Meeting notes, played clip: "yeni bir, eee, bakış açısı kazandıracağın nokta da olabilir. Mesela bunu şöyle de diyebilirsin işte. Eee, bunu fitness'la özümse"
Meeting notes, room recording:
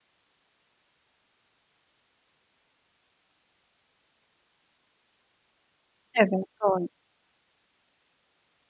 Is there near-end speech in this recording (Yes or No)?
Yes